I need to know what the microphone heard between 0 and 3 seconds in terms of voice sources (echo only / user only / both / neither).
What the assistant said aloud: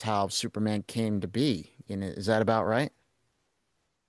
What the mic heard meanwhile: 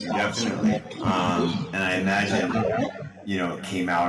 both